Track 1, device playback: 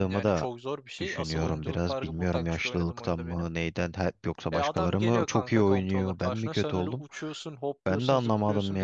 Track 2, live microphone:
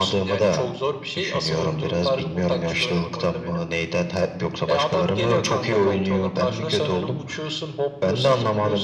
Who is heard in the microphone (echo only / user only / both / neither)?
echo only